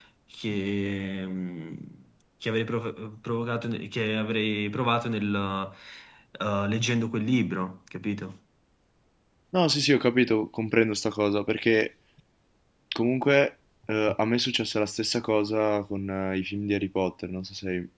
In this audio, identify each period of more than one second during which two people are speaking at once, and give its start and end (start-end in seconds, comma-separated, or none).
none